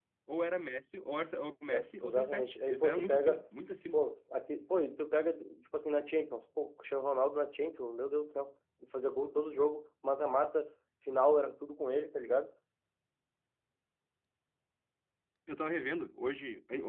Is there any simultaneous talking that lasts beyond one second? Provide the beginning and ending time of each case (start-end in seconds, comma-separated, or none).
1.7-3.4